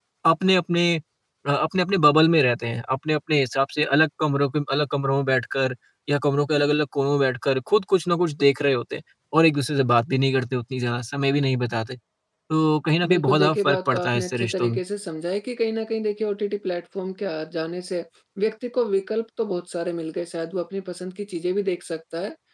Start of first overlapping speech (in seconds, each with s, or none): 13.0 s